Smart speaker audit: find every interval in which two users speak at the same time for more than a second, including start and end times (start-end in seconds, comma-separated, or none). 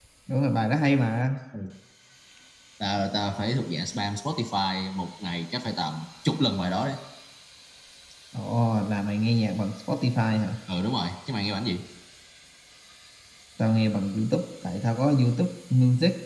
none